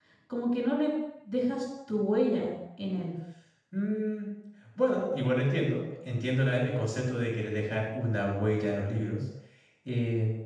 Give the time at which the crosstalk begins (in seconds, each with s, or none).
none